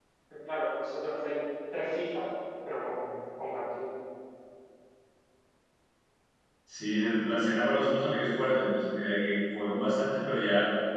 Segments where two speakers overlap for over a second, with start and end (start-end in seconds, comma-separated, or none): none